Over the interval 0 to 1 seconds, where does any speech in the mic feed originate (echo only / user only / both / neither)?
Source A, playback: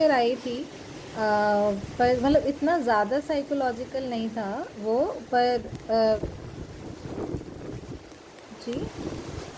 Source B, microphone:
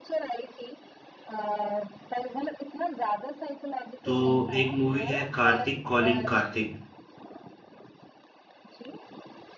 echo only